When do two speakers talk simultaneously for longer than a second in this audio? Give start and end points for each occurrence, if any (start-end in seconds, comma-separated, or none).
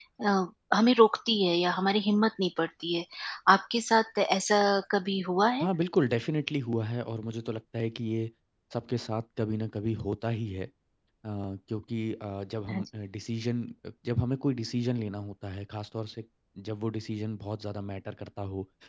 none